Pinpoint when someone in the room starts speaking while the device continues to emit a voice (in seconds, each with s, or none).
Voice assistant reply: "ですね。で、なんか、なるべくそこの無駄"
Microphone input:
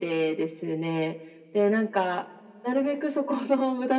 none